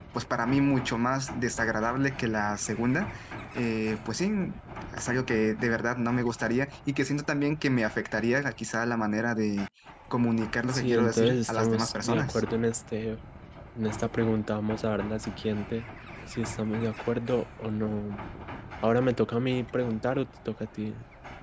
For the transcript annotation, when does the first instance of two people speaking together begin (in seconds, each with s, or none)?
10.7 s